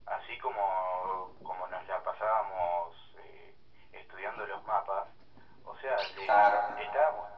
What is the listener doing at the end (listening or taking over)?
listening